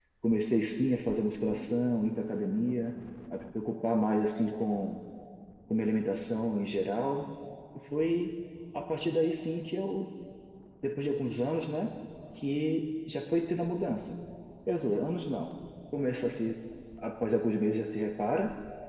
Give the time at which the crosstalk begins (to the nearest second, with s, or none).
none